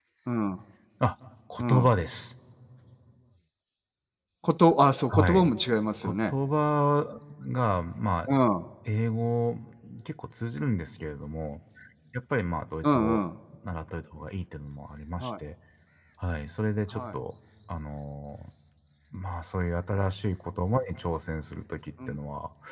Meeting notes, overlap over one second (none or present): none